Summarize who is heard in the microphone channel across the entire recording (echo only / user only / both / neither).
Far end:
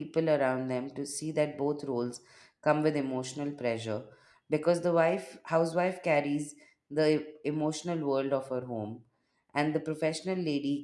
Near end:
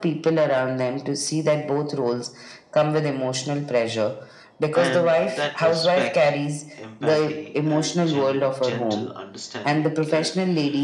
both